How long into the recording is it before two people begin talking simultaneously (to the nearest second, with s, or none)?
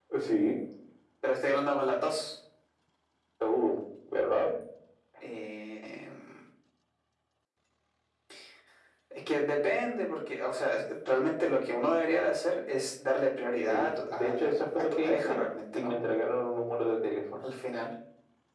14 s